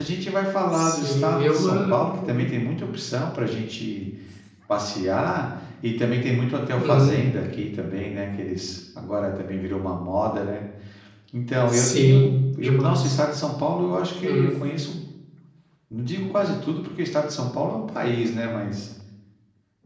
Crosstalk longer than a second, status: present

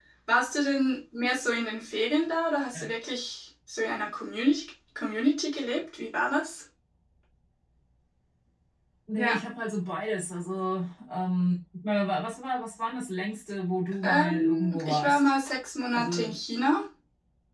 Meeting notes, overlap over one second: present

